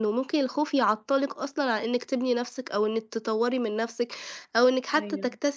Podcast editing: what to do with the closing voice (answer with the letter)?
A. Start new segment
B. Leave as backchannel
B